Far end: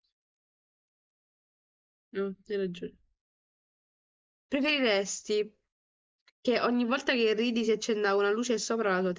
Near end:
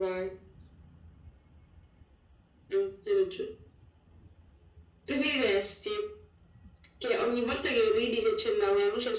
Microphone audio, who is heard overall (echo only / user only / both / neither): echo only